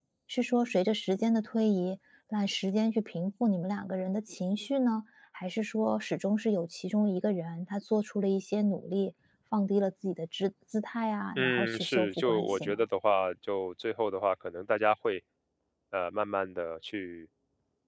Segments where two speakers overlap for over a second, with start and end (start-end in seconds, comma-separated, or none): 11.4-12.8